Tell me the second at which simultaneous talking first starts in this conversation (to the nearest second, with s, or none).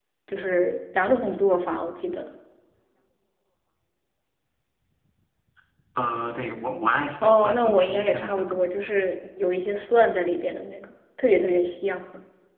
7 s